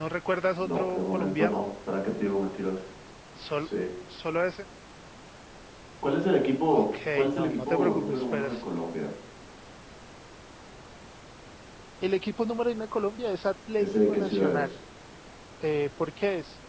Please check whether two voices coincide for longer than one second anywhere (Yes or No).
Yes